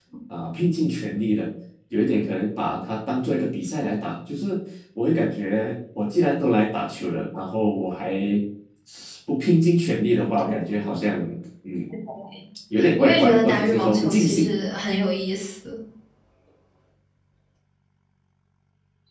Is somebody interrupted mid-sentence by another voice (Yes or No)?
Yes